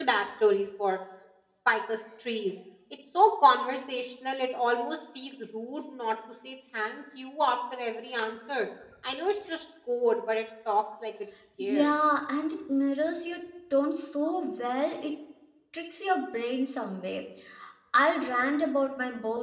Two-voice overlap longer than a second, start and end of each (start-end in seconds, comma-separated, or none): none